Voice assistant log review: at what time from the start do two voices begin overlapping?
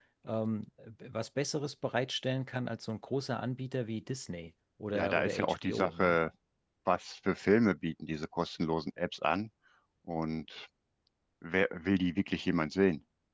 4.9 s

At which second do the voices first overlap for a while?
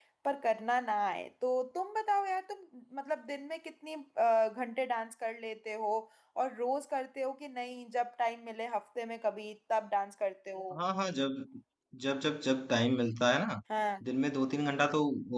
none

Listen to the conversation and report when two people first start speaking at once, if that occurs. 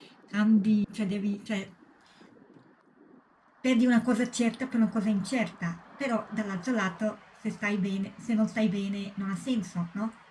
none

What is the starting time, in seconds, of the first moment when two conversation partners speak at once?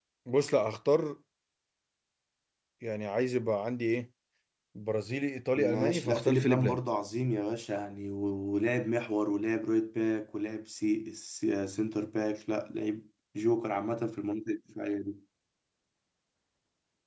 5.6 s

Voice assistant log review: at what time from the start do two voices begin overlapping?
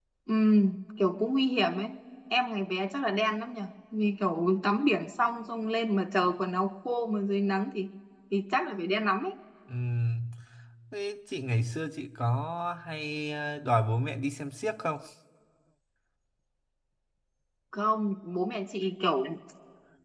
none

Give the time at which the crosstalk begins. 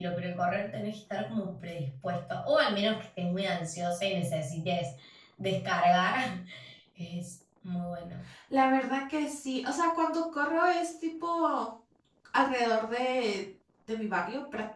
none

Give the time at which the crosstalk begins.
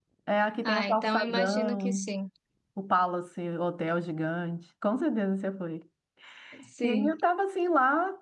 0.7 s

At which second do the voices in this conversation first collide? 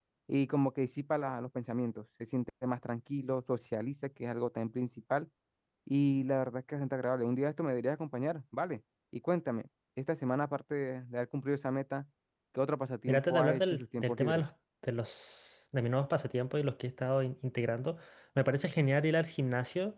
13.1 s

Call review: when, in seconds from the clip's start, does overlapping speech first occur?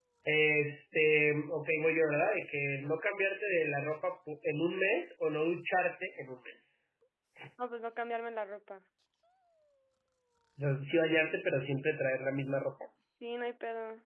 none

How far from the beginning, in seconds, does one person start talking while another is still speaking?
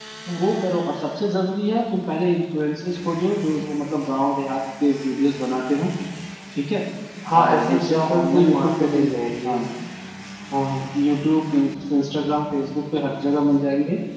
7.4 s

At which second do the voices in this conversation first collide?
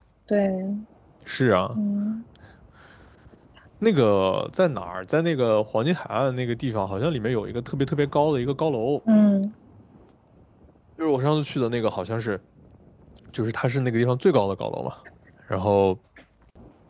none

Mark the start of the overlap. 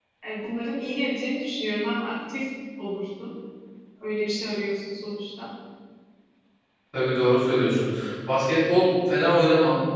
none

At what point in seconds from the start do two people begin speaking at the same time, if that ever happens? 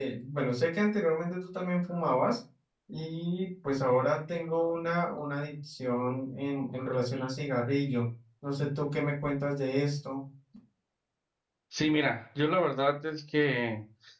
none

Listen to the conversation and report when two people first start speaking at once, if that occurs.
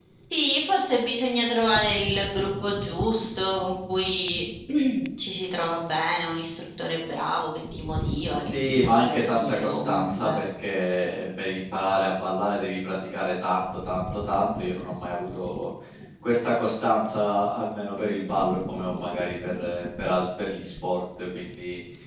8.4 s

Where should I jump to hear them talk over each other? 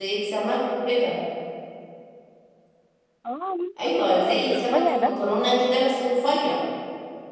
3.8 s

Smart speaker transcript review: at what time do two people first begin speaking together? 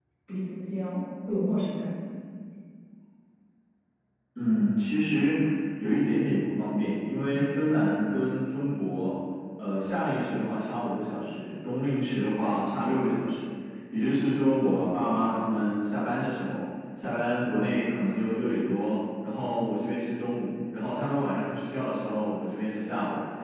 none

